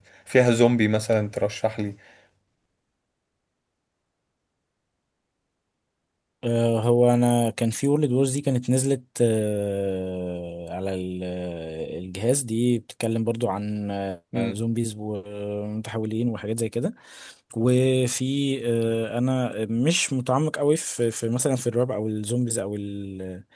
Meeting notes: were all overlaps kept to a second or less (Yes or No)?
Yes